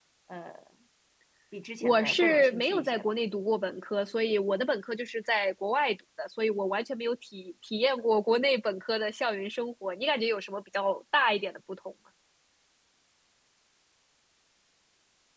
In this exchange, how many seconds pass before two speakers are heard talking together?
2 s

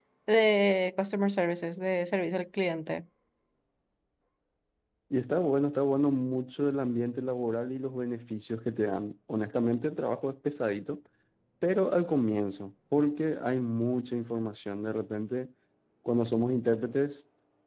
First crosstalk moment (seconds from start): none

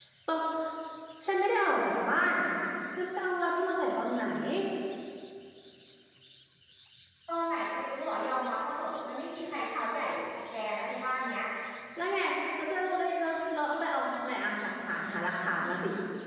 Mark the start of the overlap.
none

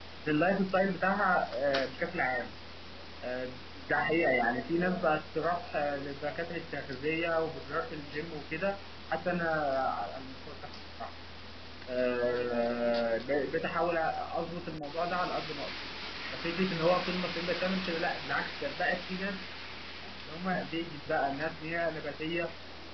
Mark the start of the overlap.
none

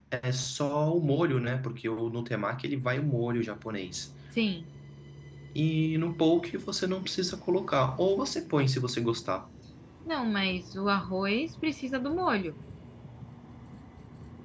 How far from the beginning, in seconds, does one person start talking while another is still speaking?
none

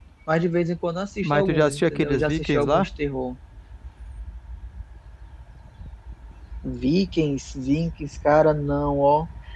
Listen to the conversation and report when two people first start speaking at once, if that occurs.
1 s

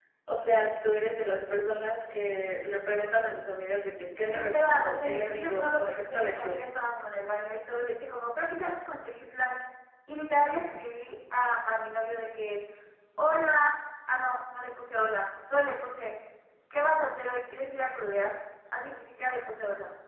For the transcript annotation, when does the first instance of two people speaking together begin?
4 s

